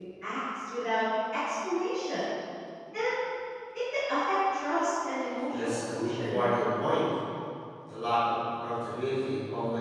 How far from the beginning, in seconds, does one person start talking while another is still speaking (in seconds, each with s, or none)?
5.4 s